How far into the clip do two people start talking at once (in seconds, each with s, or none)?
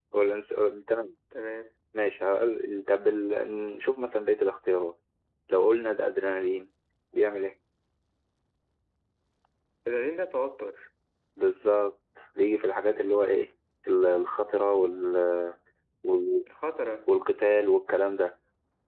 none